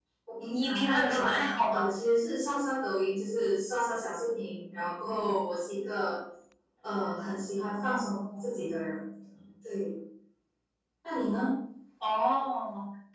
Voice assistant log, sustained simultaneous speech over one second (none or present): present